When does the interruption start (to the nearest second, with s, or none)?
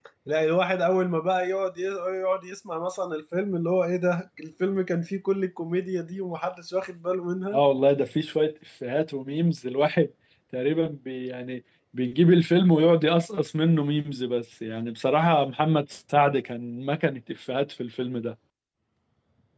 none